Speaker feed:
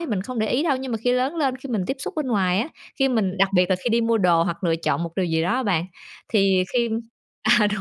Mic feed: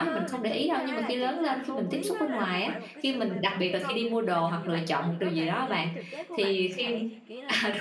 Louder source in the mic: echo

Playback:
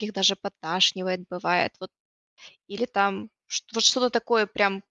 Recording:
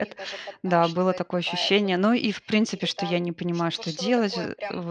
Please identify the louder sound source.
user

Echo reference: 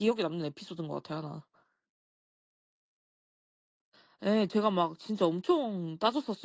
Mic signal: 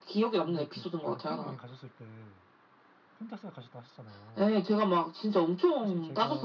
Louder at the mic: echo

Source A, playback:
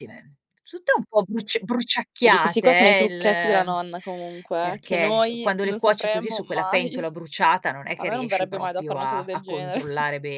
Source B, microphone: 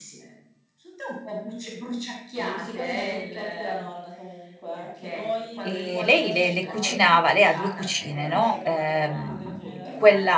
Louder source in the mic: user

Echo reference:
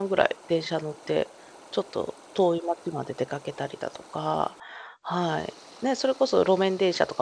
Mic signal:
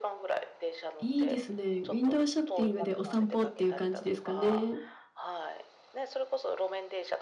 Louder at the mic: user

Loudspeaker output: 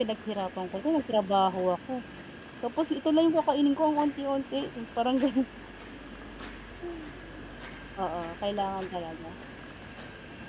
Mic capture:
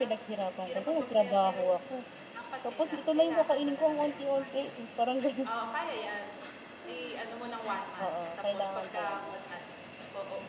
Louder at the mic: echo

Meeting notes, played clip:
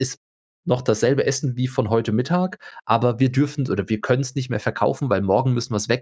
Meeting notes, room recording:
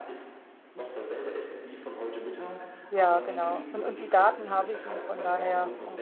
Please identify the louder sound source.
user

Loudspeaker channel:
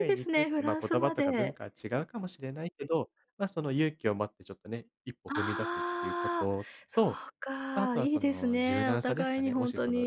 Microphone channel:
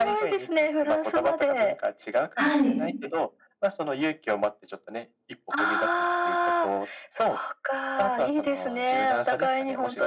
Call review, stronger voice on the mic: user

